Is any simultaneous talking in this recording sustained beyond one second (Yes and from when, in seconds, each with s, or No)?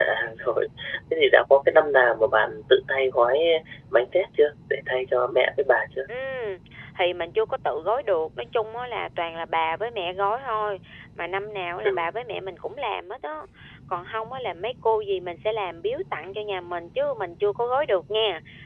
No